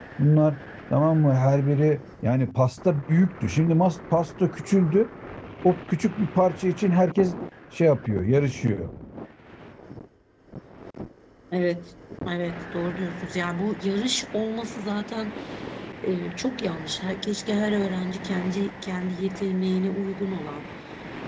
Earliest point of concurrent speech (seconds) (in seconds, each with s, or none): none